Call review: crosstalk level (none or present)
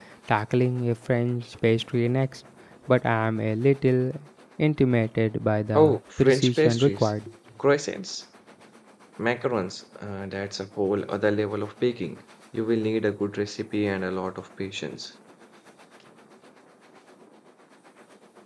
present